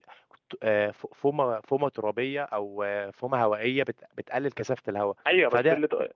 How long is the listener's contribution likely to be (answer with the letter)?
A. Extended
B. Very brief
A